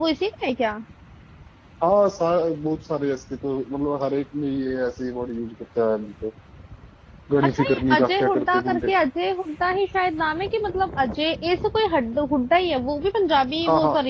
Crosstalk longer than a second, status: present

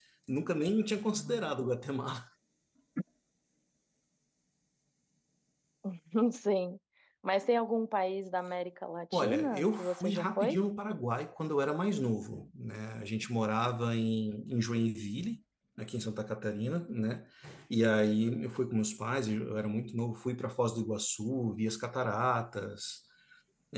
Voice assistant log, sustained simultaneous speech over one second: present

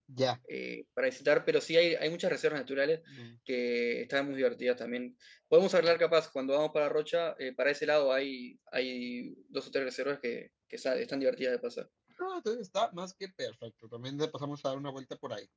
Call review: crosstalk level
none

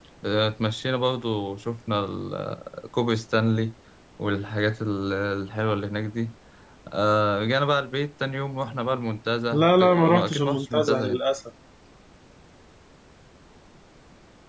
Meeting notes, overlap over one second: present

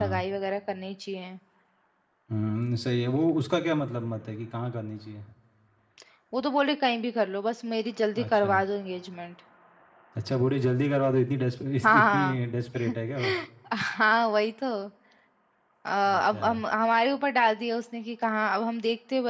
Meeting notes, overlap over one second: none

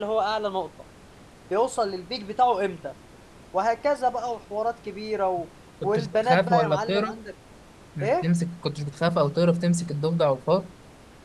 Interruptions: present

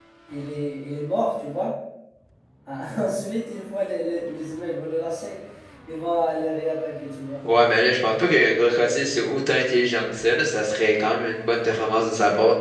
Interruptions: none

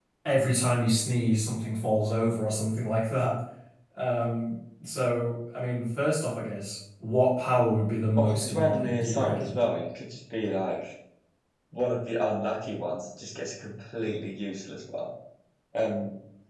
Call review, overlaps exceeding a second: present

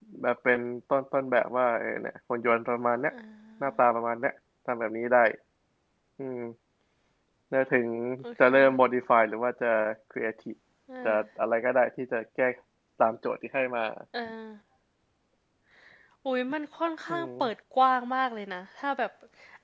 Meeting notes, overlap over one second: none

